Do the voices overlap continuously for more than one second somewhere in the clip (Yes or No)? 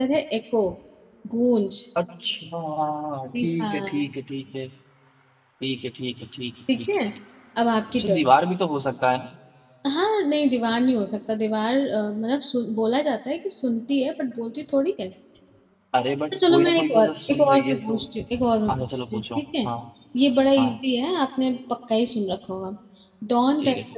Yes